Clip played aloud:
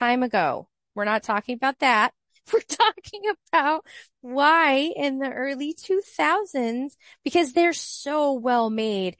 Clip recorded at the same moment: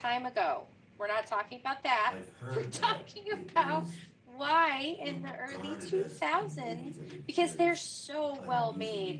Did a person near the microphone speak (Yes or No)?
Yes